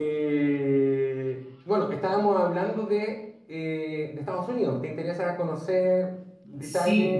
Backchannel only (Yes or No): No